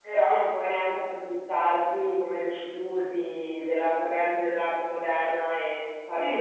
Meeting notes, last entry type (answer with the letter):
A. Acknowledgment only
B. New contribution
B